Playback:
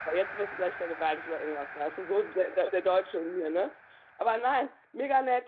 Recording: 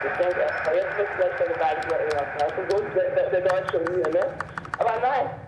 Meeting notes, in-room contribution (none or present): none